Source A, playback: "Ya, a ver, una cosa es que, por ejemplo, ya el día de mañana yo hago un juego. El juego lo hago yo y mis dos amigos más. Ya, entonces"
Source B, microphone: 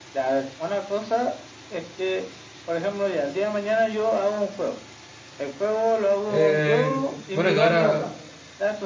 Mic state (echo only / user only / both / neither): both